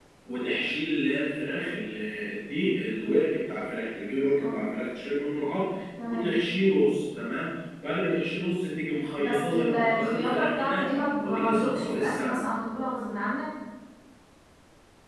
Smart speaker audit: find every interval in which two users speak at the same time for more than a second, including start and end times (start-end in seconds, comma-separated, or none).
9.2-12.4